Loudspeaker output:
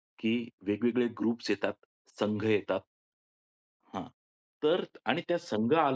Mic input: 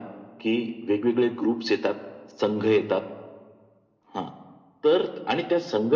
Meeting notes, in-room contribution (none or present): none